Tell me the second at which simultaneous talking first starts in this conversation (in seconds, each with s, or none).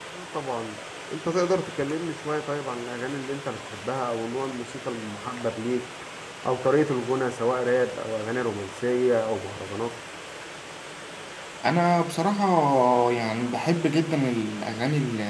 none